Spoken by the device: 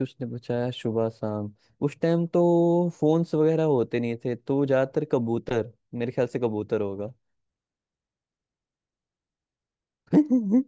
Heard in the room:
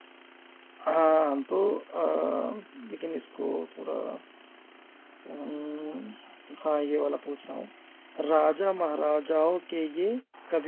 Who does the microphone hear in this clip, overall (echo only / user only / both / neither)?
user only